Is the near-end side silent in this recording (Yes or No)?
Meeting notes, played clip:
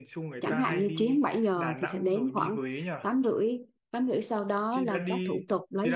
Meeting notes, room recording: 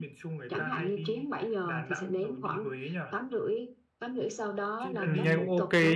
No